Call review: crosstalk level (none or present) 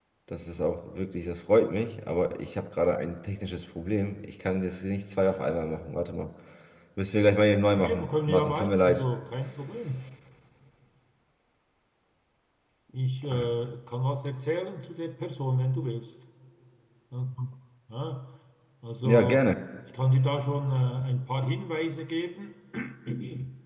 present